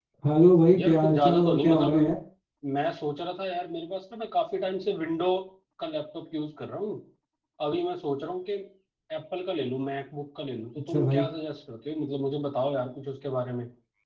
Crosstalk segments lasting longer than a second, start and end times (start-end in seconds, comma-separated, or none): 0.7-2.1